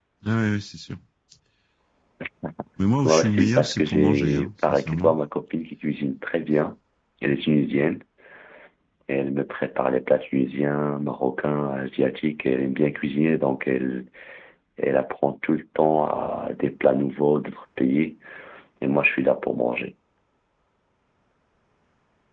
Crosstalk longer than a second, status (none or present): present